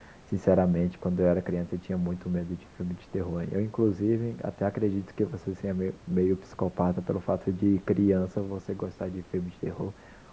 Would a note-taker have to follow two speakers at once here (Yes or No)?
No